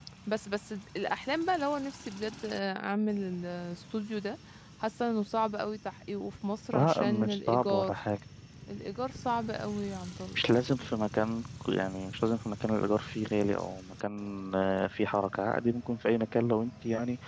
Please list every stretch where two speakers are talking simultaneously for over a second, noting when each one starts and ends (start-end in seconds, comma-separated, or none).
6.7-8.0